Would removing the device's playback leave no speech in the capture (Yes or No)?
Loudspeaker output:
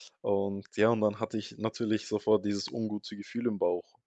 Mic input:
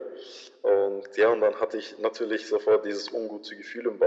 Yes